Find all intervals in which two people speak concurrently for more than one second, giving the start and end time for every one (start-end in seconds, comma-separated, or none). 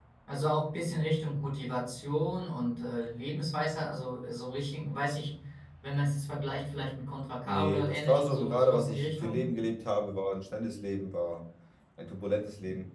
7.5-9.4